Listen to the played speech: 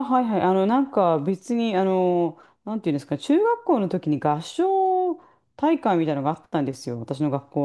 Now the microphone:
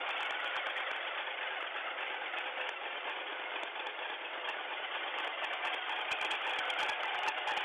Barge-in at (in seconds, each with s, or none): none